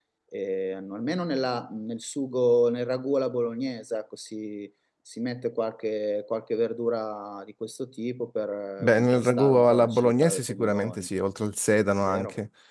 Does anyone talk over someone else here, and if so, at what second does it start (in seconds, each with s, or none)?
8.8 s